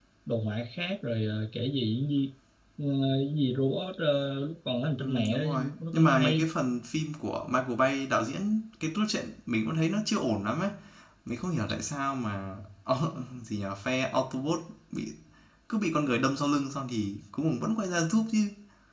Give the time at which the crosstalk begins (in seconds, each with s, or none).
5.0 s